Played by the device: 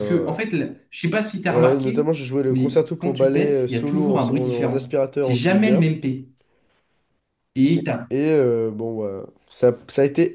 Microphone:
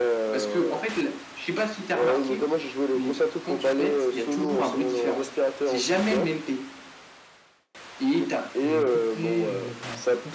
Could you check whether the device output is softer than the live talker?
No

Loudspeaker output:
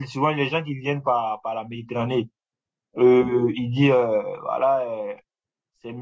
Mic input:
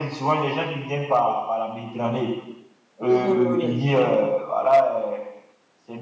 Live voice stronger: No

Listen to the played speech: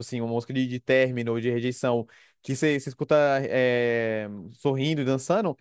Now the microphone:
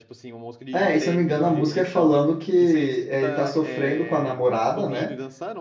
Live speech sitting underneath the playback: No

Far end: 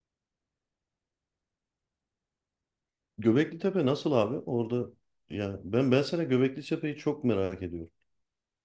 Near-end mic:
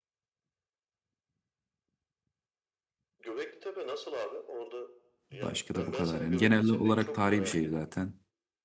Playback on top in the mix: No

